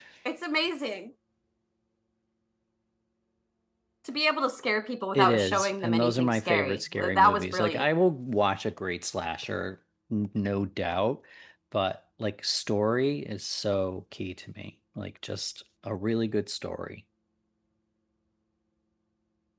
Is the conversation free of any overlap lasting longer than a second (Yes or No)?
No